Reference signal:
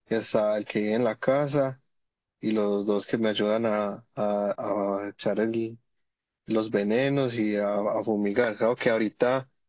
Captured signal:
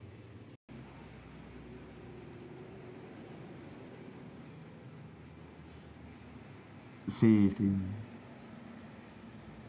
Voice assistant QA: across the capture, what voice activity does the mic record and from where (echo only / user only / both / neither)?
user only